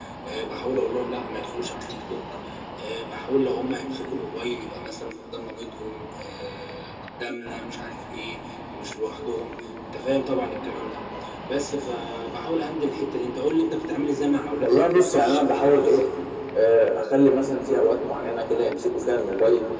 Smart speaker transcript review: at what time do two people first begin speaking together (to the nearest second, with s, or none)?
15 s